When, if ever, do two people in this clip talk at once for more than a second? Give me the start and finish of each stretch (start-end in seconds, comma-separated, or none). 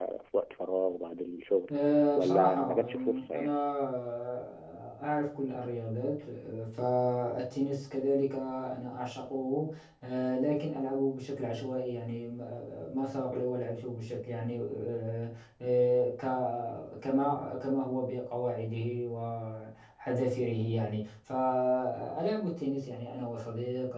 2.1-3.5